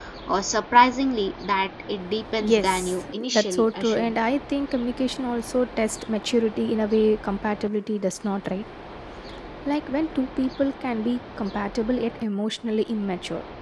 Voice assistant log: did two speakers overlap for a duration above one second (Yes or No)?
Yes